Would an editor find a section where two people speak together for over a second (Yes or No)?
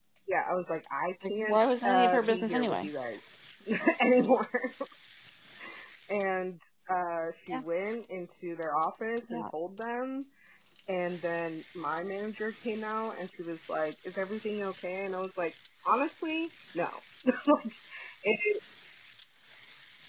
Yes